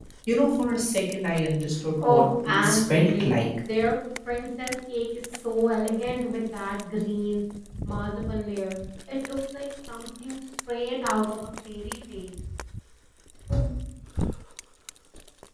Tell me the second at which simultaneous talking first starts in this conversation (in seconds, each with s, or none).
2.0 s